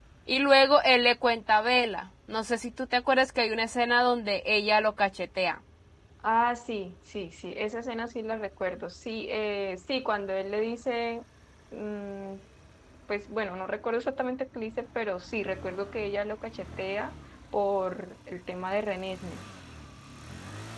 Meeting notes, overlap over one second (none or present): none